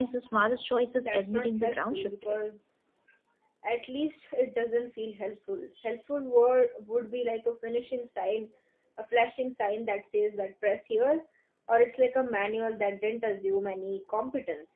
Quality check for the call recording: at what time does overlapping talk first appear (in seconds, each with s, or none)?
1.0 s